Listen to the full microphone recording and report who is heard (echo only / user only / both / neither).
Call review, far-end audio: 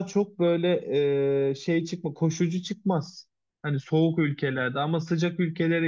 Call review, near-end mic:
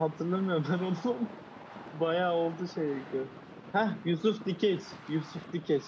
user only